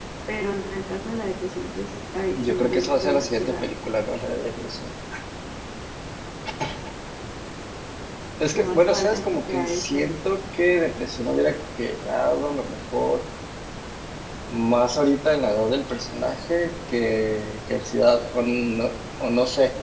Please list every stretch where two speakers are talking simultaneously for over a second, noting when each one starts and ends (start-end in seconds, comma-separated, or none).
2.3-3.7, 8.5-10.0